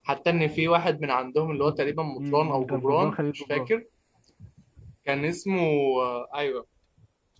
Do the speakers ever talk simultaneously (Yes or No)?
Yes